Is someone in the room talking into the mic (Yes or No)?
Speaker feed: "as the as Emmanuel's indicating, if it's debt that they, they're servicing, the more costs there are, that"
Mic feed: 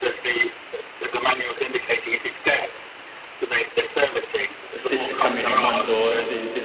Yes